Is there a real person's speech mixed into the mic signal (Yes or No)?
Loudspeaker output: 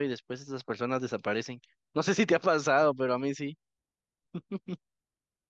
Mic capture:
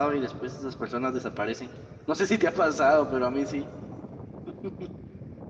No